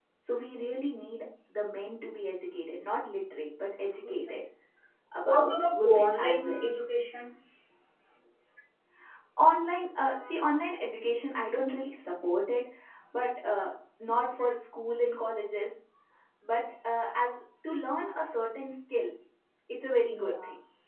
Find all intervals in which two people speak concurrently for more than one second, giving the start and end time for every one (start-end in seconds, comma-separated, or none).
5.2-6.7